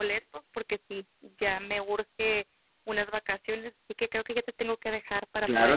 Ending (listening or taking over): taking over